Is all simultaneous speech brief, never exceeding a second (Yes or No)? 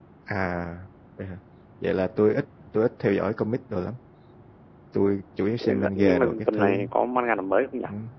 No